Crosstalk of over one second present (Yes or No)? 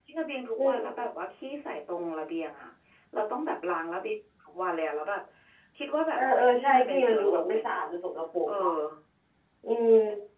Yes